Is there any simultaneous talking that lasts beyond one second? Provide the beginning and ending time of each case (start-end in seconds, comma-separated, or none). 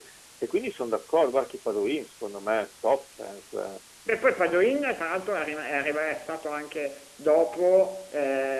none